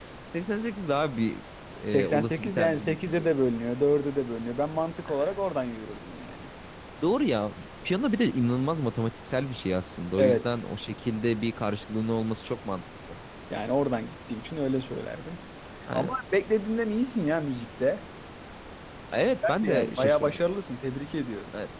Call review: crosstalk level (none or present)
present